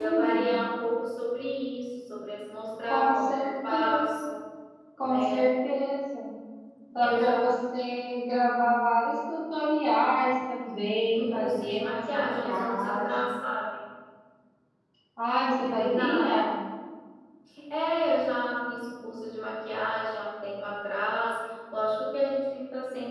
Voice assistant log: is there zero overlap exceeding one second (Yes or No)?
No